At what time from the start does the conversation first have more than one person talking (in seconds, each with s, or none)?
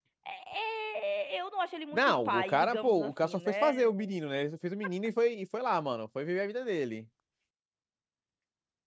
1.9 s